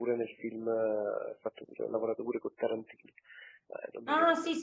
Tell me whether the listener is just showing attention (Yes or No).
No